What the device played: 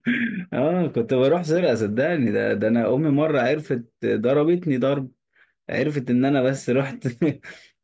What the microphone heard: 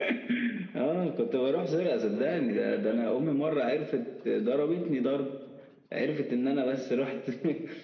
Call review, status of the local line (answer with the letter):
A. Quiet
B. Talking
B